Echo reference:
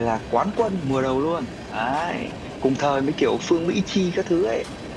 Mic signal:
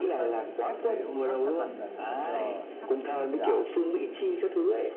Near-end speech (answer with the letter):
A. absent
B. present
B